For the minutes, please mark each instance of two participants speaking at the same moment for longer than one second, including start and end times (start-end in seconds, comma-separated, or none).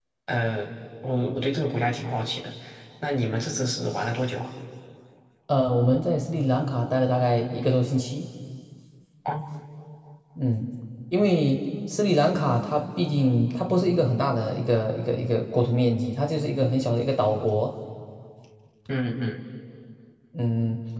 none